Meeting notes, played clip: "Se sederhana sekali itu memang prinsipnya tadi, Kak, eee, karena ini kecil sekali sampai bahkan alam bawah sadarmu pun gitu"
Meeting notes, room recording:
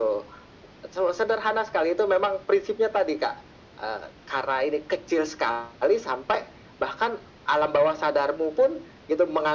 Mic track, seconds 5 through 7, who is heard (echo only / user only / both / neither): echo only